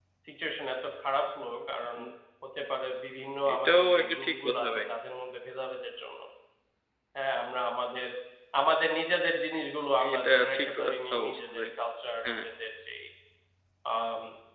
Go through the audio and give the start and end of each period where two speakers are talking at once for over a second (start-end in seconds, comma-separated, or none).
3.5-4.8, 10.1-11.7